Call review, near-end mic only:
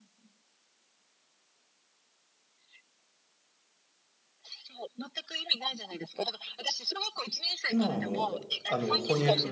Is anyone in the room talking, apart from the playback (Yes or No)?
Yes